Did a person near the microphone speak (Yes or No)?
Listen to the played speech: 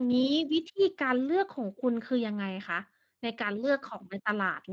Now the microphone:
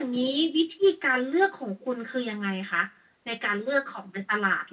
No